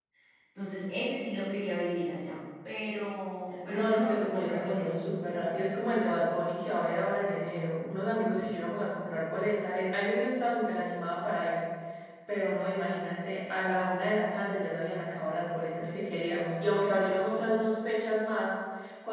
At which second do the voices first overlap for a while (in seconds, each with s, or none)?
3.7 s